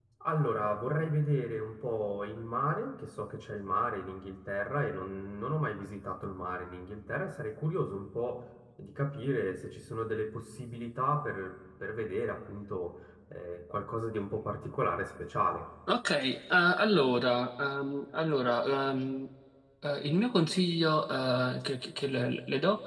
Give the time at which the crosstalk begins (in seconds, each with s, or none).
none